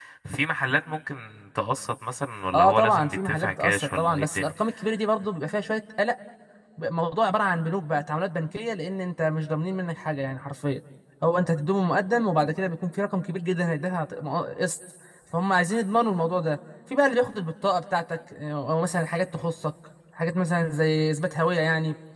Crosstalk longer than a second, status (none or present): present